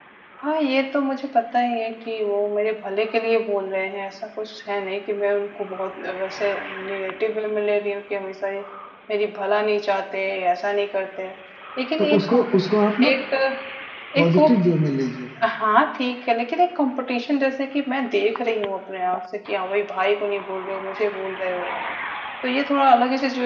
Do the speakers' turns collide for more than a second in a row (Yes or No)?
No